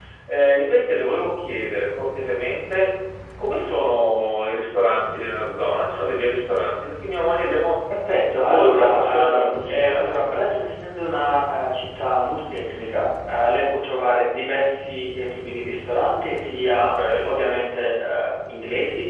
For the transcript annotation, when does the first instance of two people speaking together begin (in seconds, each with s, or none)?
8.4 s